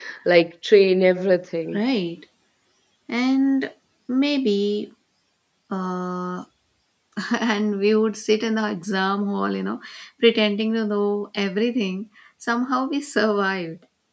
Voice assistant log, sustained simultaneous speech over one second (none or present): none